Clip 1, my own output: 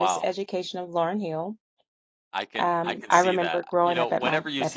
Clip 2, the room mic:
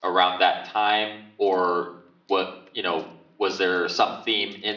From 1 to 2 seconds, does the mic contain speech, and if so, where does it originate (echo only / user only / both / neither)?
user only